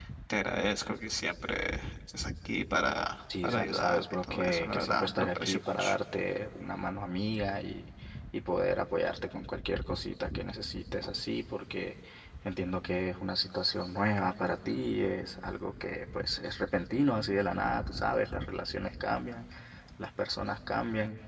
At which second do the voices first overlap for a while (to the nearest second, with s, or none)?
3 s